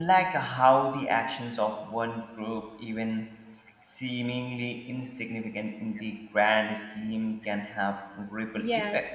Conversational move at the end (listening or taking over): taking over